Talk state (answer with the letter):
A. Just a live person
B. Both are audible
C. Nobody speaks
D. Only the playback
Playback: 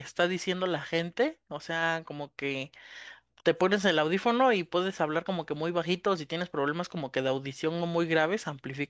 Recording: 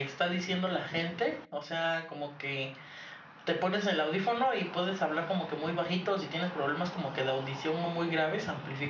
D